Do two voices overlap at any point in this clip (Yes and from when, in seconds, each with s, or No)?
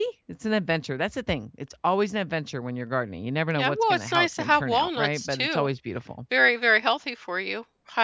Yes, from 3.6 s